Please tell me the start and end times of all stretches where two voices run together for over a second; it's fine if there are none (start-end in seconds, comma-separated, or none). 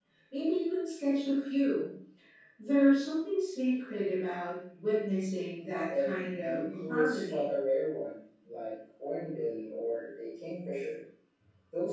5.9-7.5